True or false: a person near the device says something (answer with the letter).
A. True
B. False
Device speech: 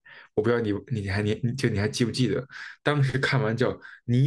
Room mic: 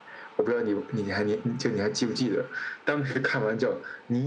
B